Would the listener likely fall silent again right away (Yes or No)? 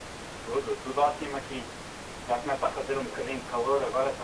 Yes